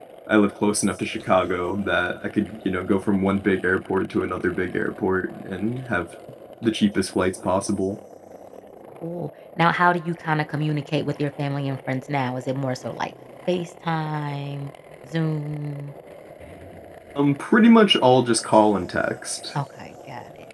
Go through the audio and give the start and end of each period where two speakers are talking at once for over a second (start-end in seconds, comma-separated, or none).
none